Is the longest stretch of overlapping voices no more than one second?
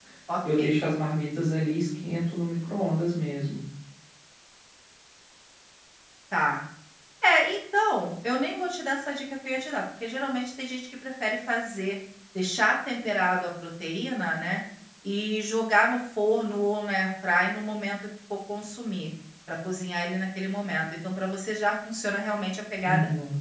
Yes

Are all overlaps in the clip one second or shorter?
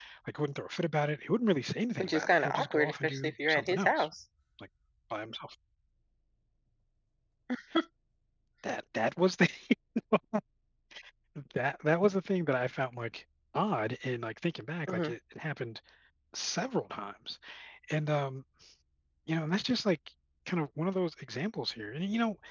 No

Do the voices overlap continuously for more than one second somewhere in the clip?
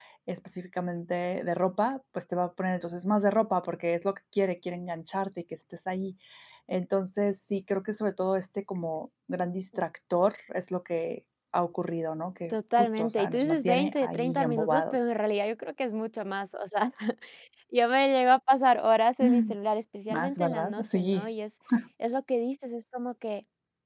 Yes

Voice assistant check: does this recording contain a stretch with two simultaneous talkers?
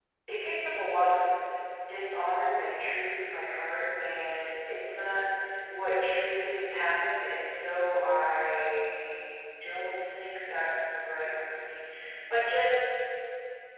No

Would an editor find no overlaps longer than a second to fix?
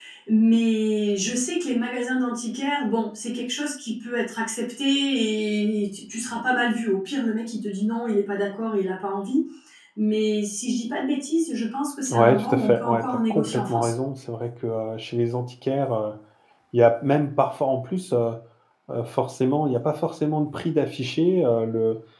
No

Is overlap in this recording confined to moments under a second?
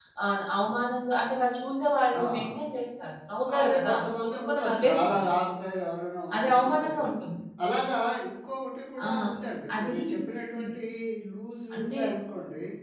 No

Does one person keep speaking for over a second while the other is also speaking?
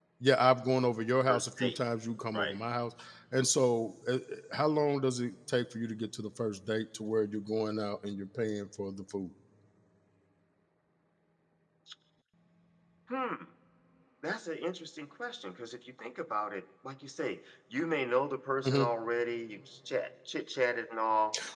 No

